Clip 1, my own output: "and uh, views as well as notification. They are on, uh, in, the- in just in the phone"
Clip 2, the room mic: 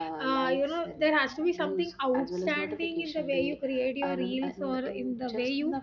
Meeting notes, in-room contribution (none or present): present